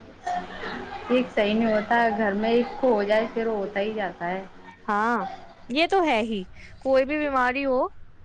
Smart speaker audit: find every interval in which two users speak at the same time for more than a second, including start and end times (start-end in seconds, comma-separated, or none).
none